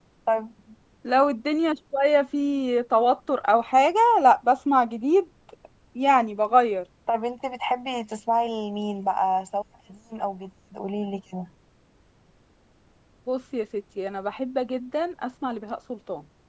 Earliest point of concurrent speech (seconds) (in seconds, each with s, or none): none